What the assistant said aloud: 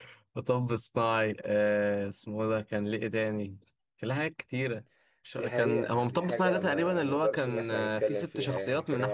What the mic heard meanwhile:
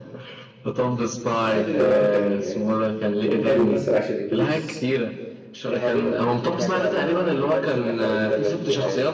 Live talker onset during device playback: 1.4 s

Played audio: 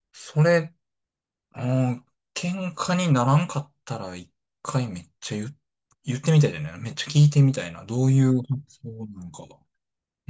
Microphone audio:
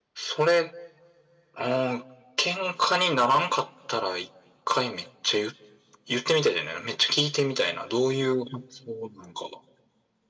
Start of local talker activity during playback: none

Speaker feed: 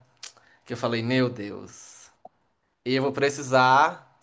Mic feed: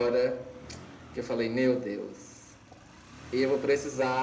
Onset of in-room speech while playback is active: none

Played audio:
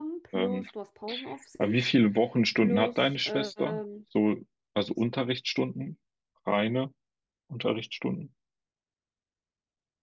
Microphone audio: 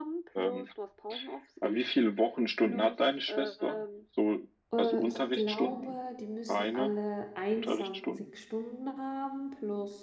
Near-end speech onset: 4.7 s

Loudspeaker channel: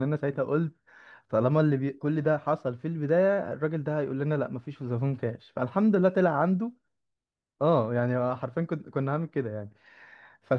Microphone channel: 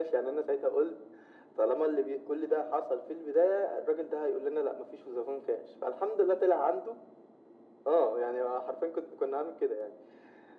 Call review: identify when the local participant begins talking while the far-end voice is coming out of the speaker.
none

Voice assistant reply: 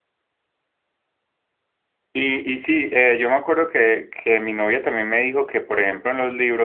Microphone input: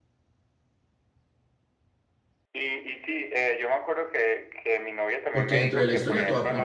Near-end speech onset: 5.3 s

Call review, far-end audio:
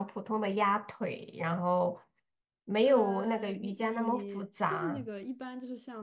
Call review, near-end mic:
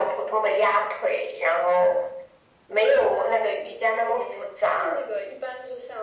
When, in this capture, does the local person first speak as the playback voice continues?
none

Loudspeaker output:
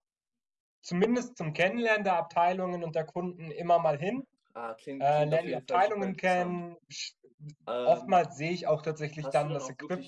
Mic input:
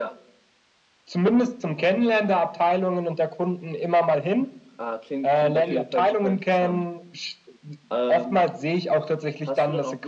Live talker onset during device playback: none

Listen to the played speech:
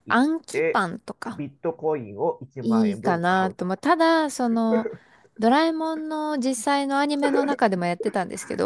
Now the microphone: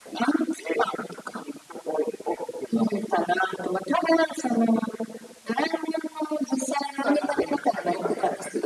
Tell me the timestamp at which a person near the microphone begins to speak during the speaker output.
6.9 s

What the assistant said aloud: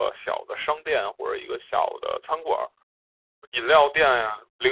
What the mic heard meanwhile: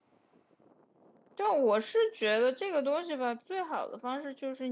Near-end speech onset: 1.4 s

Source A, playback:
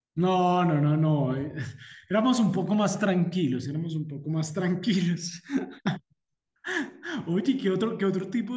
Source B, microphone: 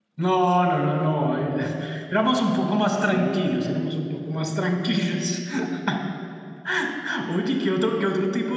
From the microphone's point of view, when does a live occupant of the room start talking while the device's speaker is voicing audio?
3.0 s

